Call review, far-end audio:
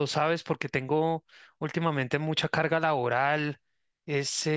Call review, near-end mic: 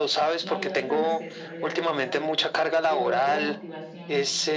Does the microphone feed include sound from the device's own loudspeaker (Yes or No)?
Yes